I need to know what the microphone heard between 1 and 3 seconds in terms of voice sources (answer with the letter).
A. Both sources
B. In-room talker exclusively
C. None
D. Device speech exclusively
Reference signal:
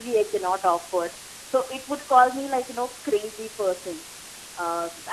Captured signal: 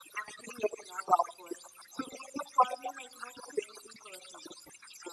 D